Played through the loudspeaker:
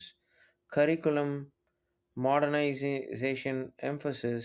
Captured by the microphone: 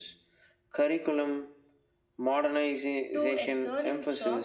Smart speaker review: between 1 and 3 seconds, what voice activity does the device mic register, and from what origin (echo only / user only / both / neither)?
echo only